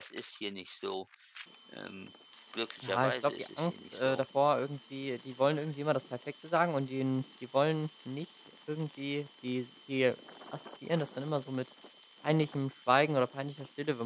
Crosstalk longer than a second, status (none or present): present